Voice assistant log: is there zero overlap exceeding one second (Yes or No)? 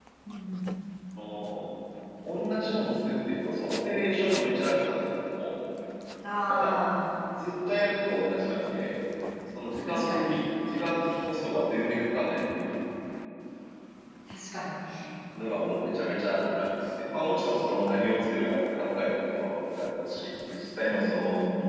Yes